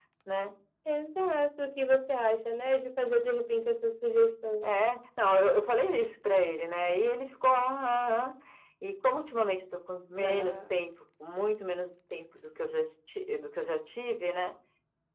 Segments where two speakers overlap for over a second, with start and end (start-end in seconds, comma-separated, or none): none